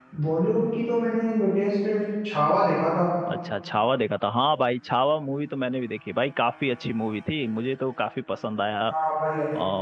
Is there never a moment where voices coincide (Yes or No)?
Yes